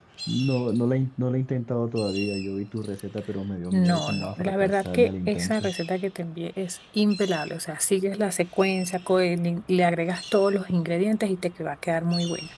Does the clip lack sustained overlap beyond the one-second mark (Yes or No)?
No